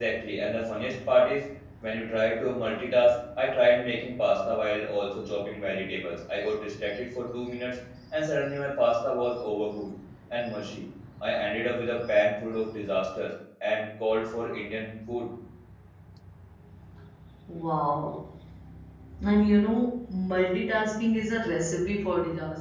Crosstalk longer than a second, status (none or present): none